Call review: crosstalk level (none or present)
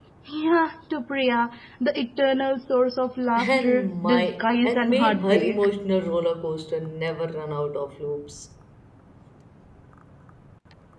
present